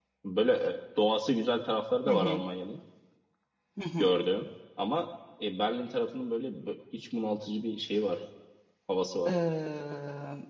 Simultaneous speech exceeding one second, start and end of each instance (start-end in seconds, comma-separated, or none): none